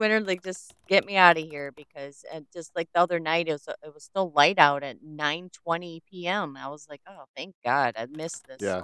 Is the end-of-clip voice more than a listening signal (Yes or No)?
Yes